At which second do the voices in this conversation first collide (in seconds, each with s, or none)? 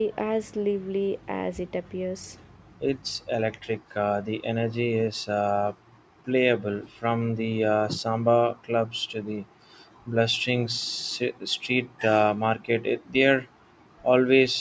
none